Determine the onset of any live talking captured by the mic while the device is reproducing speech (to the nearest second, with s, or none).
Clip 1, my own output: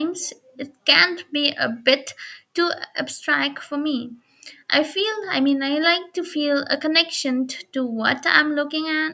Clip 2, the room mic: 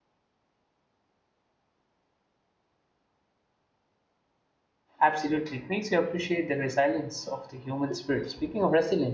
5 s